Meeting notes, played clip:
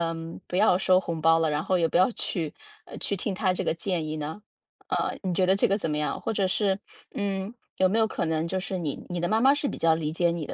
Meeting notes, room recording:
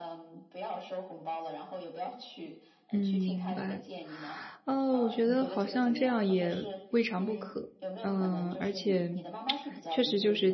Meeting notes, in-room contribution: present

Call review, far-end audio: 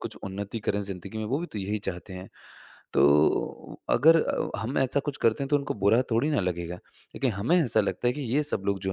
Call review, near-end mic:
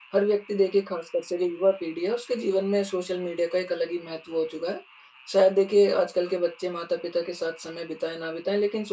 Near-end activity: present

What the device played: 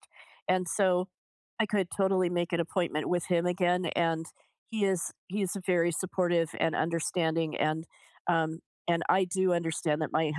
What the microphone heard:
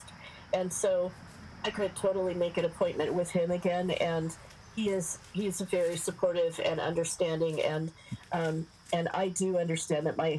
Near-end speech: none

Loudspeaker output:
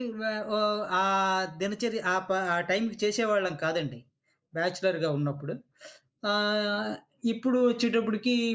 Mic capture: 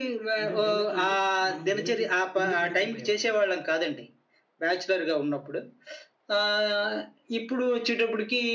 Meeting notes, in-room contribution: present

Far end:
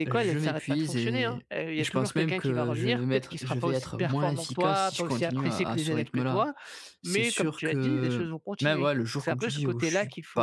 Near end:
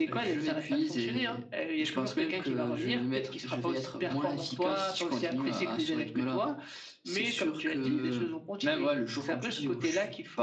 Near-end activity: none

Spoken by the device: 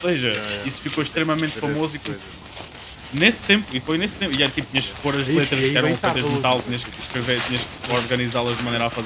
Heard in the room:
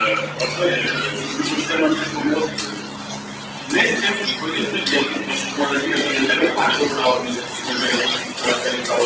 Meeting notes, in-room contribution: none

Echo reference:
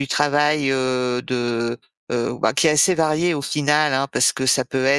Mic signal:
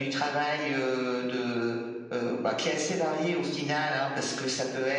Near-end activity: none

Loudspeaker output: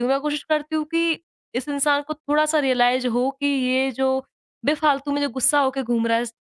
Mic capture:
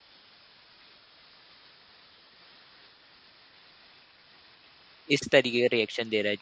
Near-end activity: present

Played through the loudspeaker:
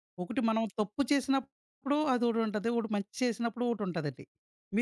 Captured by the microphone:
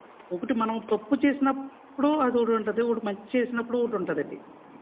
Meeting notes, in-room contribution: none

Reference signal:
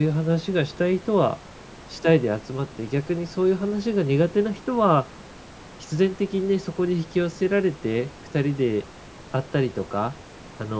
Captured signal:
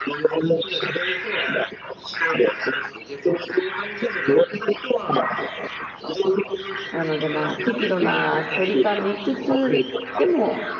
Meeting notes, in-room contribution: present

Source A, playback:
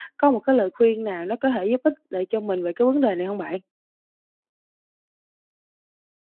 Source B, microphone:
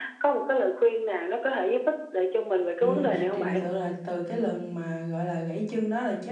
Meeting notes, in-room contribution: present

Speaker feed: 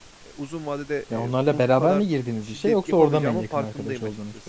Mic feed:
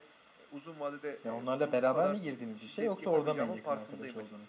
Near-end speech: none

